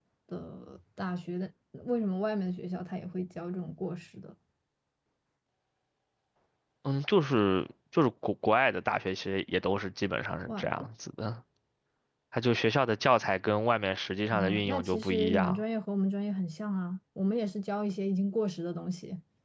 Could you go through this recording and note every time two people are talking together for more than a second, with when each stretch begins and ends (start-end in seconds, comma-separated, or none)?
14.3-15.6